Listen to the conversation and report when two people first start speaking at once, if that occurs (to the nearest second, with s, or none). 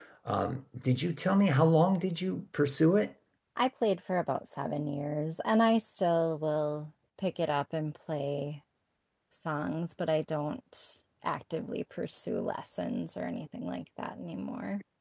none